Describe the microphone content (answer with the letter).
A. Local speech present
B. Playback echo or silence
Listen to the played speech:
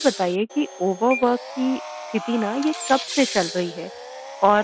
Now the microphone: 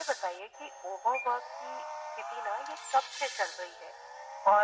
B